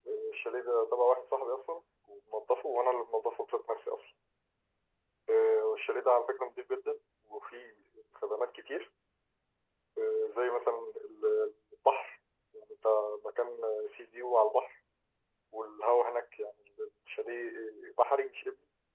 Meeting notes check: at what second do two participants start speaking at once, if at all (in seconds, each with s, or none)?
none